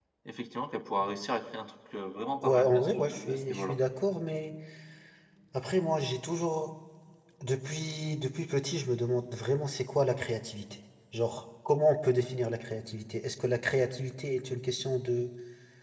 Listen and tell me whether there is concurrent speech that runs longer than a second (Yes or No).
Yes